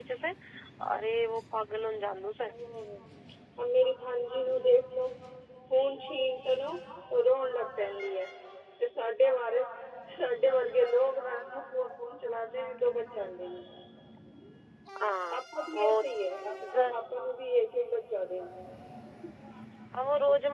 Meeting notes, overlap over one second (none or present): none